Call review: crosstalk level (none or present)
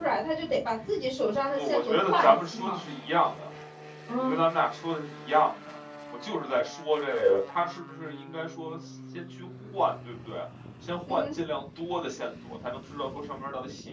present